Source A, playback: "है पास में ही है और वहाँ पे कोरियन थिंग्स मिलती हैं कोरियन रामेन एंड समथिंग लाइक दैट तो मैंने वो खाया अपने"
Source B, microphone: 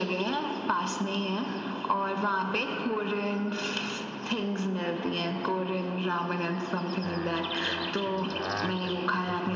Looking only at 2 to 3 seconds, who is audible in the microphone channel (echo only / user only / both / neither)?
echo only